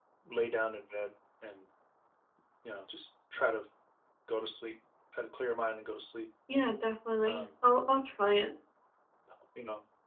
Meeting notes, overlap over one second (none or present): none